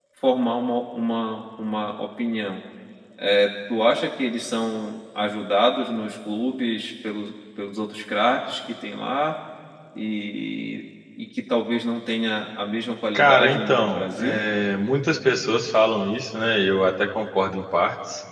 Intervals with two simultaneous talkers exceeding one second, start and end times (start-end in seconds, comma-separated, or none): 13.1-14.4